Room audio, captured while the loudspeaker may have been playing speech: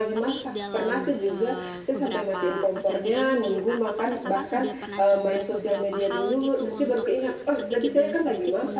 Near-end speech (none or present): present